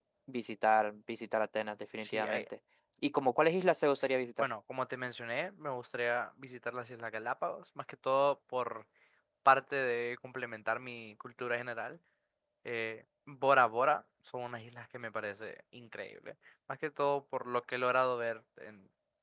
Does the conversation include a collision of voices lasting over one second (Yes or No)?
No